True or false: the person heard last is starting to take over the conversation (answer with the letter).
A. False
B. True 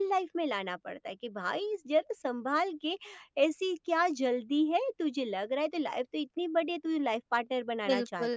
B